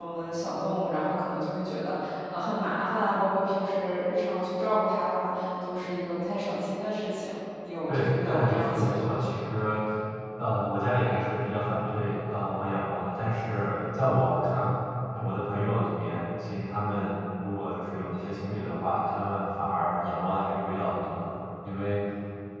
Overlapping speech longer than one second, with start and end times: 7.9-9.2

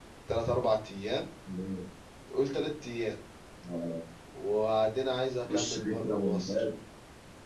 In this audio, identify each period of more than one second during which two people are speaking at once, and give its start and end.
5.4-6.6

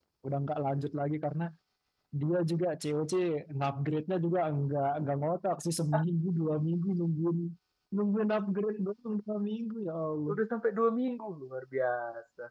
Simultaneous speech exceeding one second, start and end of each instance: none

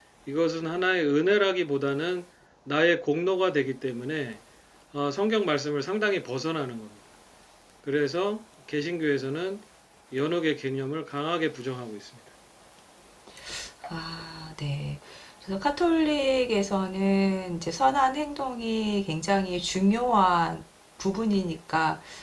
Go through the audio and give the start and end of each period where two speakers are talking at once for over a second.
none

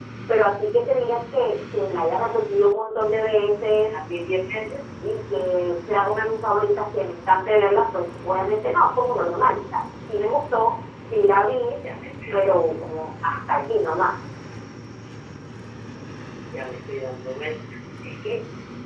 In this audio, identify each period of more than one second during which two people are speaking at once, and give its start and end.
none

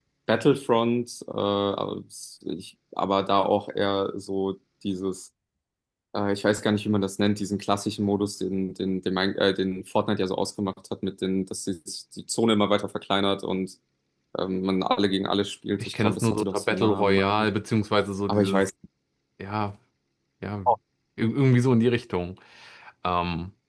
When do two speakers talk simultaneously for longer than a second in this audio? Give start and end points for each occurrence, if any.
15.8-17.5

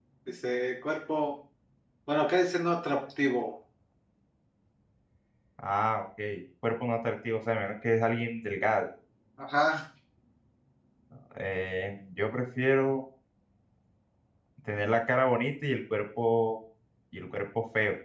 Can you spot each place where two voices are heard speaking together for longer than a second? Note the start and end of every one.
none

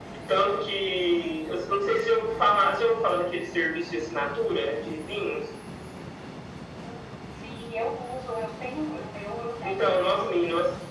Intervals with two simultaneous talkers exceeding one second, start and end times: none

